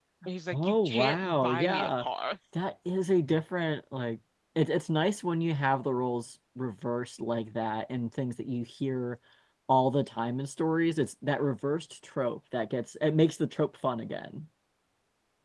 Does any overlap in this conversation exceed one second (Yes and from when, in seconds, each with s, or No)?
Yes, from 0.5 s